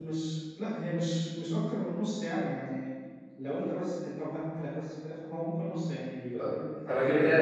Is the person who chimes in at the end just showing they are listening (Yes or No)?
No